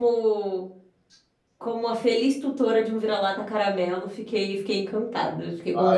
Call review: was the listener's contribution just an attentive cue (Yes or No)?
No